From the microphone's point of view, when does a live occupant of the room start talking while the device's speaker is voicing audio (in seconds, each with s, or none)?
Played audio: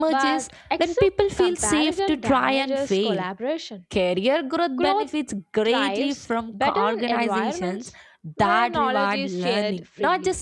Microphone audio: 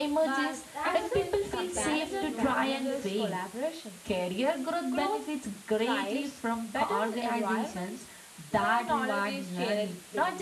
0.7 s